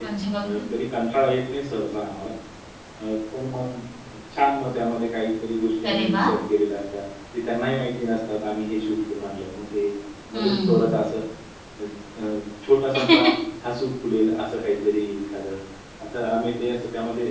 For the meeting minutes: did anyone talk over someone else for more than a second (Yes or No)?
No